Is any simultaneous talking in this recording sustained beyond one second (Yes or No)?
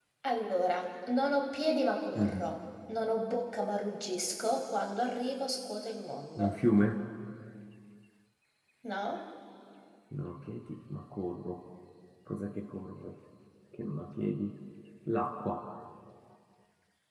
No